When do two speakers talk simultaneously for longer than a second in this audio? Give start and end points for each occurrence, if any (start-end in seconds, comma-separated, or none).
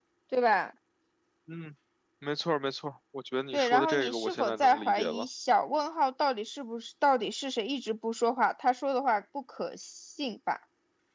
3.5-5.2